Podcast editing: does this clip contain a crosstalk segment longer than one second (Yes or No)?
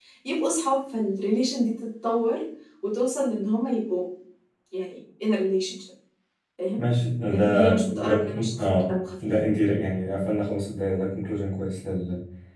Yes